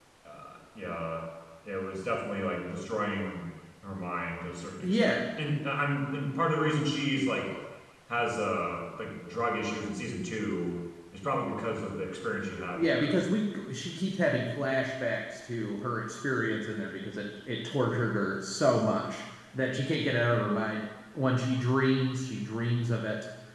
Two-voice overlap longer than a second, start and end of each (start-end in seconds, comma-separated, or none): none